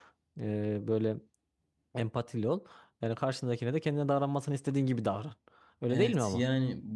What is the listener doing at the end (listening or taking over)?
taking over